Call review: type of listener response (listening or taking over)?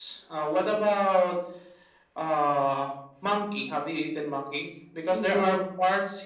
listening